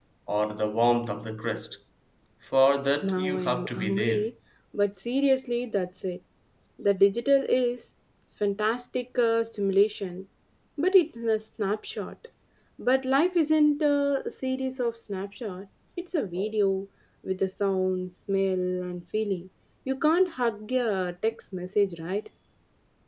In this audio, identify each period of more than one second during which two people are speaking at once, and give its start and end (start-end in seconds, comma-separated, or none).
3.0-4.3